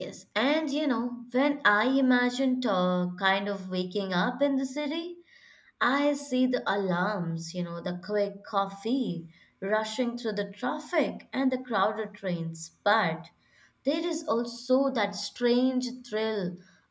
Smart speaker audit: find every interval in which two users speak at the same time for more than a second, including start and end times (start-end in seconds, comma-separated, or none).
none